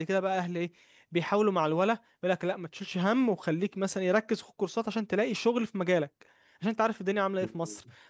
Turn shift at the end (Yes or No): No